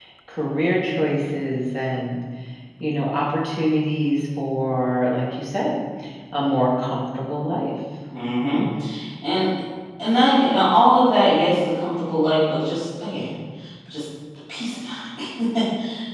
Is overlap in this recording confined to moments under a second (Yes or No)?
Yes